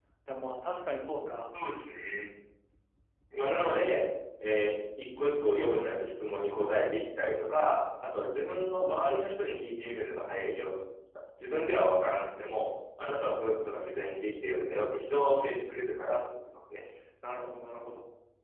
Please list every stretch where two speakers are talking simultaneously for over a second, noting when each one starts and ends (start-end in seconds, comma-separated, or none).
none